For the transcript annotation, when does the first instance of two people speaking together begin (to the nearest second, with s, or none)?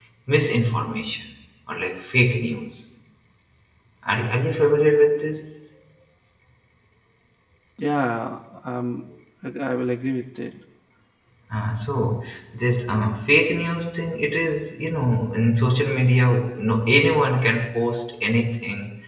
none